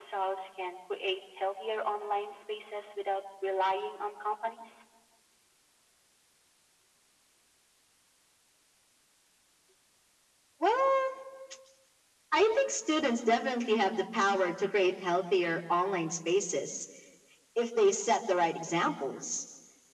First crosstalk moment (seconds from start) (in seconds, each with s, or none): none